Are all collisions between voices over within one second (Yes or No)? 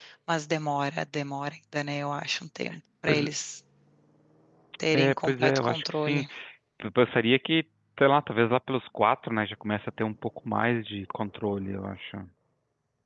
No